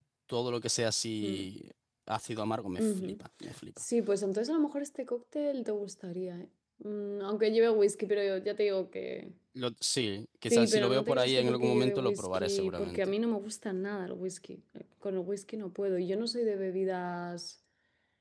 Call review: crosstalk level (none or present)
present